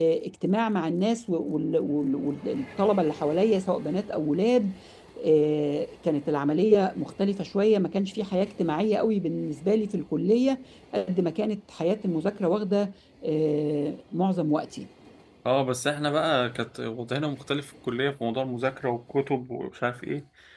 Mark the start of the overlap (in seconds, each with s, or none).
none